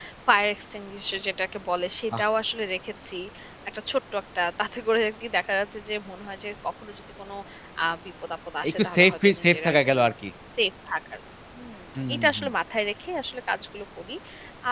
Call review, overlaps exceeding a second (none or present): present